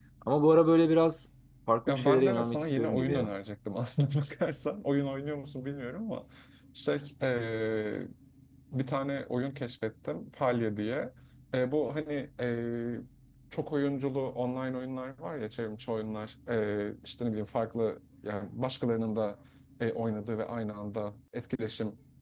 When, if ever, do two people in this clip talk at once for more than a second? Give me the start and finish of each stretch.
1.9-3.3

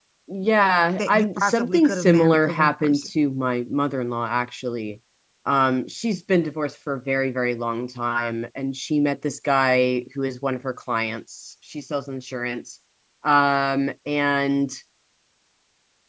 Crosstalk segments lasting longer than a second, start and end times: 1.0-3.1

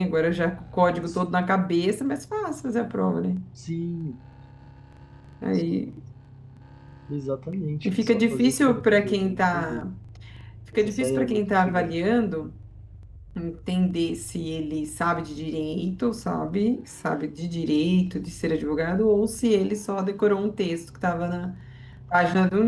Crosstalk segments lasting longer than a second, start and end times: 7.8-9.9, 10.8-12.0

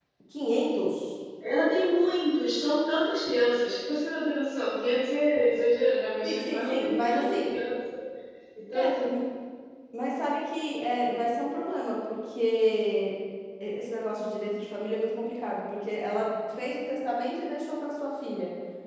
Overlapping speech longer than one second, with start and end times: 6.2-7.5

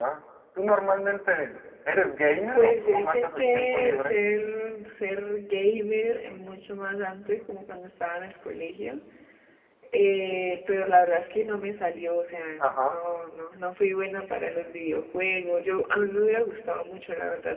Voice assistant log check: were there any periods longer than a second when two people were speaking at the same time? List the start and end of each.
2.5-4.1

